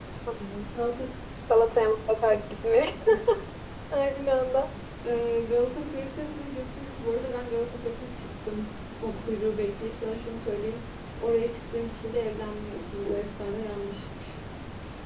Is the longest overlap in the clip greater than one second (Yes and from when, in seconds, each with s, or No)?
No